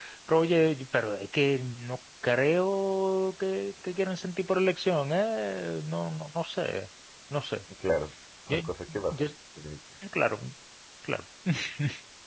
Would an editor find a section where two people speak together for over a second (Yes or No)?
No